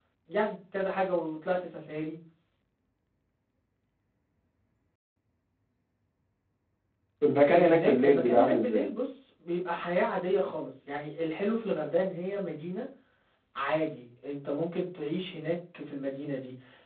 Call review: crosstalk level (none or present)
present